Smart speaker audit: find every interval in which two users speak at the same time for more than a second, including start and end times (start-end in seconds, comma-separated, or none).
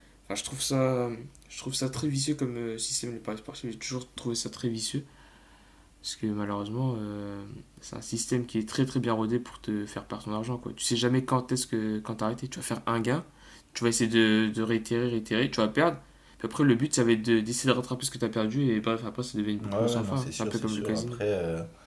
19.6-21.2